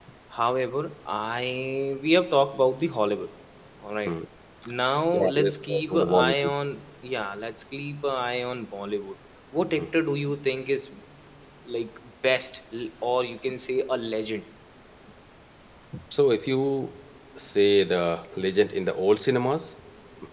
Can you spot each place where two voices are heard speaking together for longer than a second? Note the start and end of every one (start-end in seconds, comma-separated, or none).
5.1-6.5